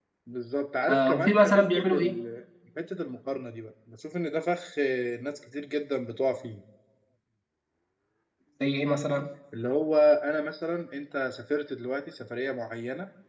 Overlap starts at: 0.8 s

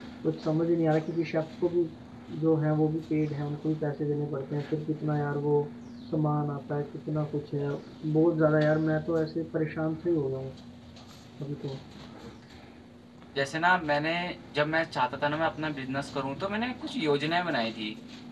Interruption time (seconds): none

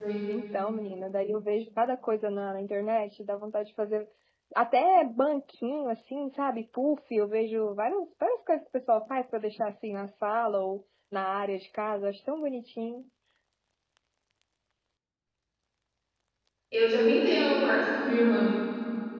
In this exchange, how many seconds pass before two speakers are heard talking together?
none

